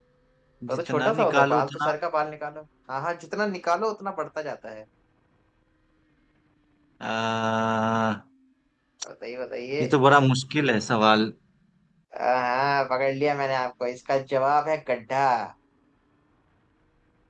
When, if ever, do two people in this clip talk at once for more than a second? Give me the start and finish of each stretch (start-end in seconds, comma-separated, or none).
0.7-1.9